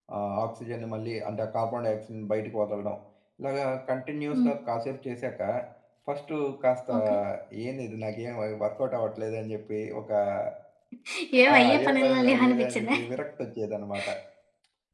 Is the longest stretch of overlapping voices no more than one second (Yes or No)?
No